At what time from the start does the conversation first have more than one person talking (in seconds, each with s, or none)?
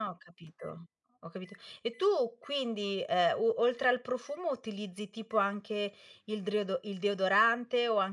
none